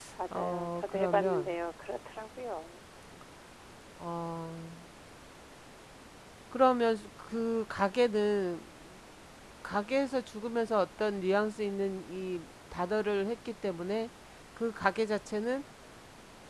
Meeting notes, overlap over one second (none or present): present